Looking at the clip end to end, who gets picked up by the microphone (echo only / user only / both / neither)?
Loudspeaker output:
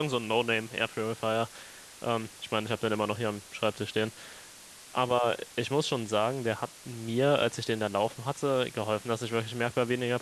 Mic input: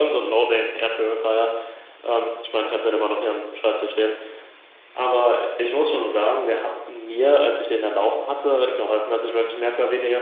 echo only